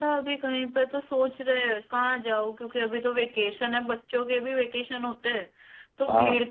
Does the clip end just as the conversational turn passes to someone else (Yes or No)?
No